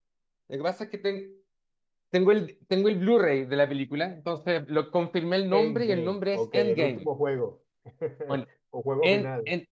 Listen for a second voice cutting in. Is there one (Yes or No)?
Yes